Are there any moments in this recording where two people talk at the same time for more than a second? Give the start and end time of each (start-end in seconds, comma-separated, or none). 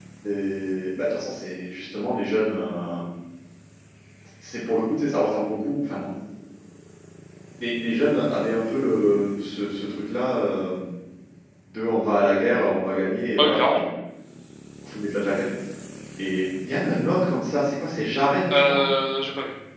none